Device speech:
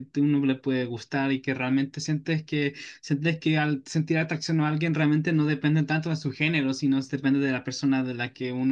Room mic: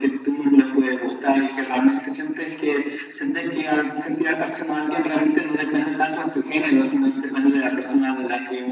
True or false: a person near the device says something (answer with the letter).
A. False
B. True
A